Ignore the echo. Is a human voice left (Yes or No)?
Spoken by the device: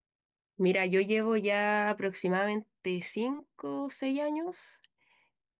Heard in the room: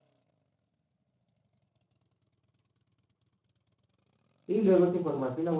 Yes